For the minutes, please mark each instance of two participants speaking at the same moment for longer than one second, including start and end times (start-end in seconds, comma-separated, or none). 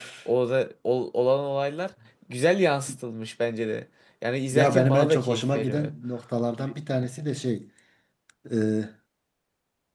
4.5-5.9